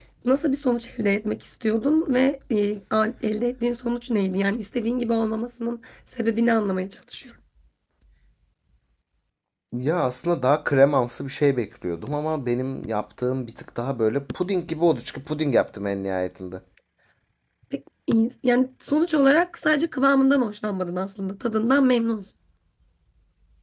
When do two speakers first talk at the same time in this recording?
none

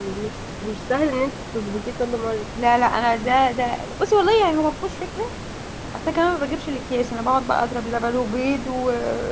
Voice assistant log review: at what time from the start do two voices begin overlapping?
none

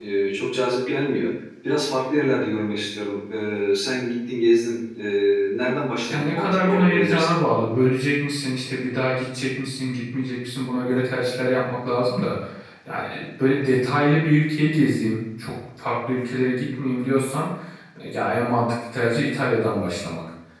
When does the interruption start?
6.1 s

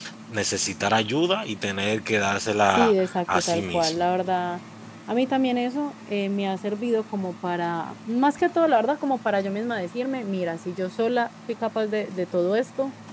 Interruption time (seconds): 2.6 s

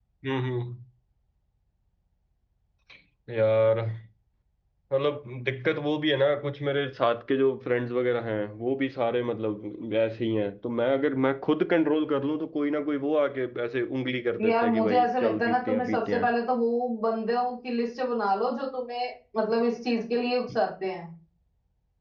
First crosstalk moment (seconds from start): 14.4 s

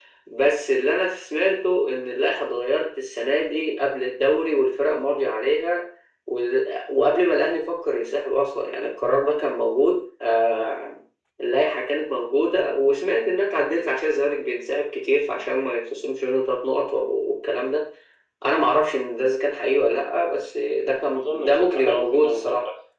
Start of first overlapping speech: 21.0 s

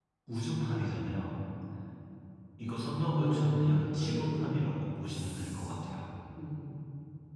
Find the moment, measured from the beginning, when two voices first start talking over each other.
3.1 s

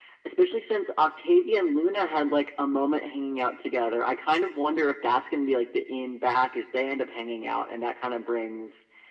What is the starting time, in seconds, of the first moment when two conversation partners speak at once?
none

